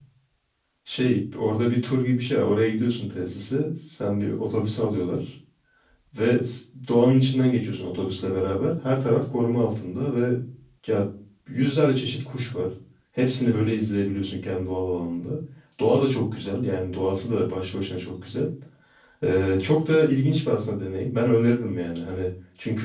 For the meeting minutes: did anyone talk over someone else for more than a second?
No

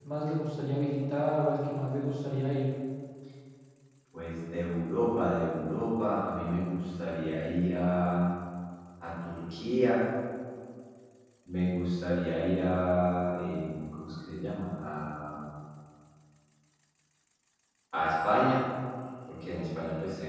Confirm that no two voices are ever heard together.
Yes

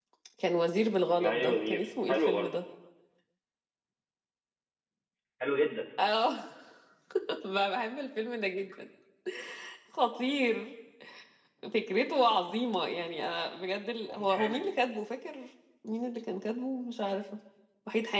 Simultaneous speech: Yes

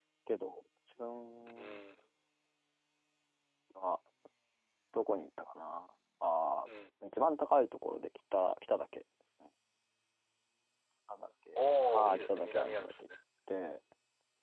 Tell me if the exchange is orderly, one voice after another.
No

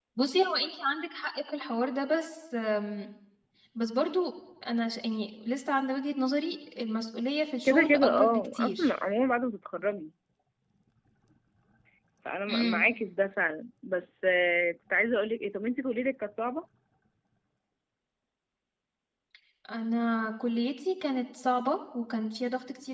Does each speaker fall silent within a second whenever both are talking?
No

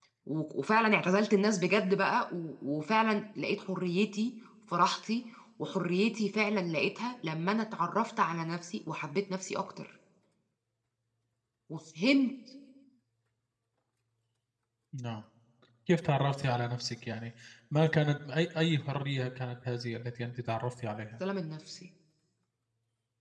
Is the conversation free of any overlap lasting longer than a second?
Yes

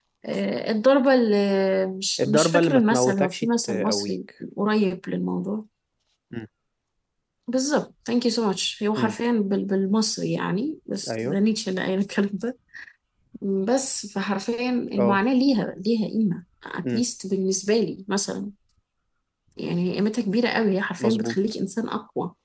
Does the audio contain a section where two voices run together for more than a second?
Yes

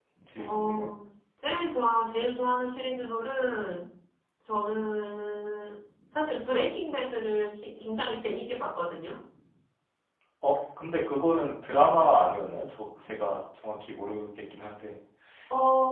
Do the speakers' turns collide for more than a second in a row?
No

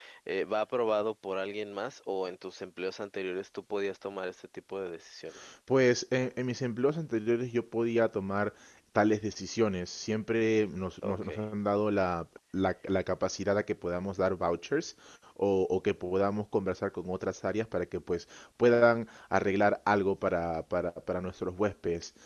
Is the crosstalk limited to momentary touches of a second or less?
Yes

